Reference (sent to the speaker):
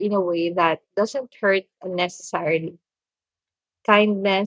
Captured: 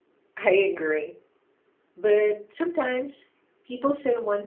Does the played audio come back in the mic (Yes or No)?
No